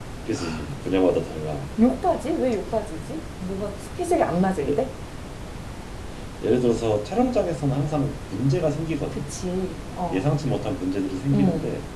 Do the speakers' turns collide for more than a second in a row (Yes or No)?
No